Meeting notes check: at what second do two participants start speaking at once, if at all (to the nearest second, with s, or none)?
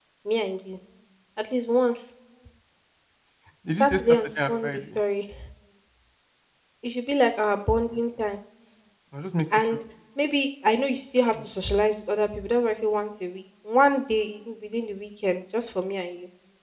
4 s